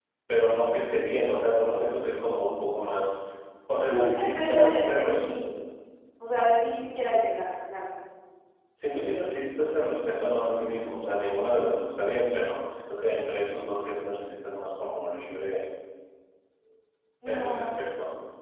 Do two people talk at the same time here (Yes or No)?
Yes